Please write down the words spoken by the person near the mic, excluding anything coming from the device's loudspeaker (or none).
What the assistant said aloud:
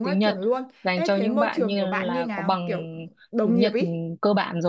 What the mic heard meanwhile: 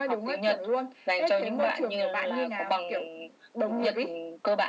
none